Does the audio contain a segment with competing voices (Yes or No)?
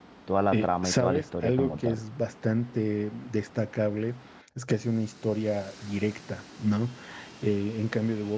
Yes